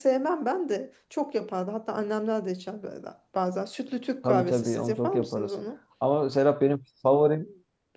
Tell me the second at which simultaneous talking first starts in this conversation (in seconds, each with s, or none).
4.2 s